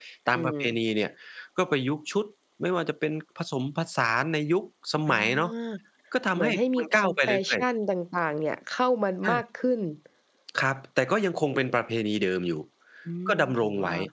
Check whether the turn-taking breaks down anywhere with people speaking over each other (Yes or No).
Yes